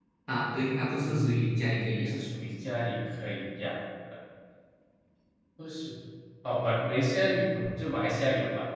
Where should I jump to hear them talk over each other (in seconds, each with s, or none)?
1.0 s